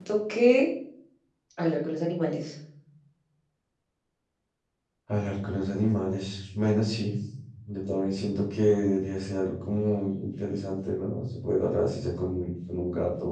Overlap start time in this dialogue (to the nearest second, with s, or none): none